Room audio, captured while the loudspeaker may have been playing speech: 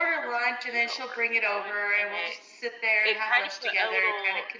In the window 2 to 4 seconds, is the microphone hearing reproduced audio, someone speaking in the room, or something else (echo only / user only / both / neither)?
both